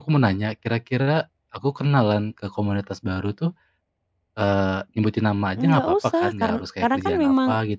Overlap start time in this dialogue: 5.6 s

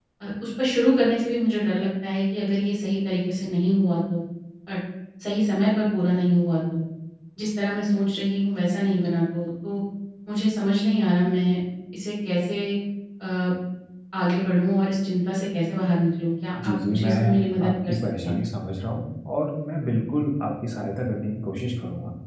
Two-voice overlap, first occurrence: 16.6 s

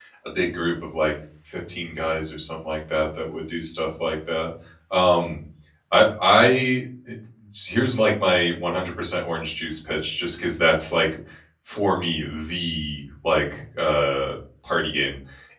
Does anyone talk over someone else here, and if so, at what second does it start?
none

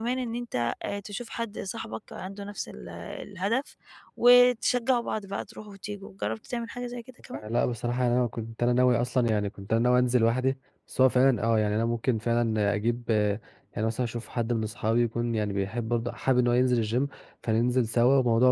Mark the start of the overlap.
none

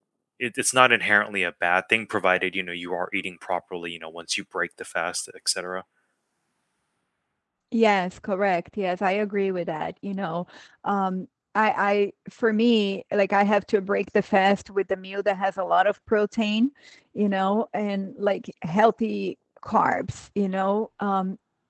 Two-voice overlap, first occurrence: none

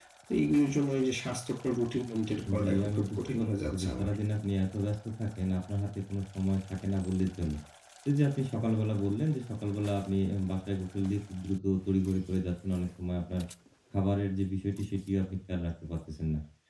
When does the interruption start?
2.5 s

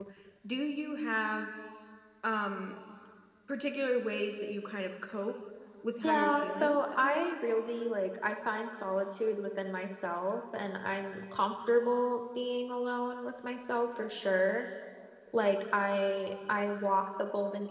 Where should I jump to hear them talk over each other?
6.0 s

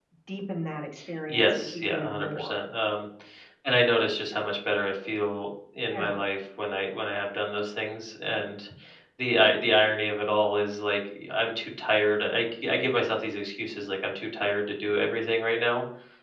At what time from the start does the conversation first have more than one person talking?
1.3 s

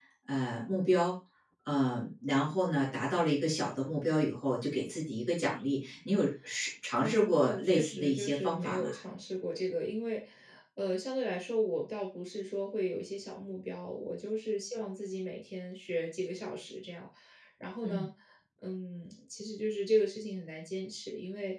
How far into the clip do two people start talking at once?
7.0 s

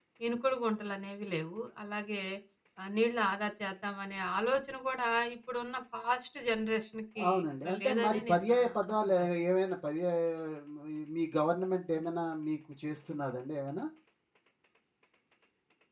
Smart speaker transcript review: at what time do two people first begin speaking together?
7.2 s

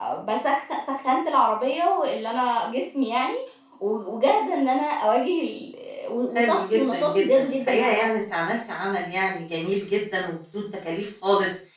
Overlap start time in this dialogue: 6.4 s

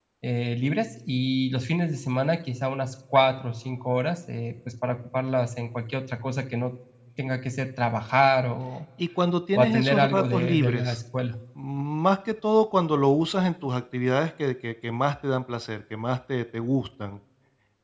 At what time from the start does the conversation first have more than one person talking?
9.6 s

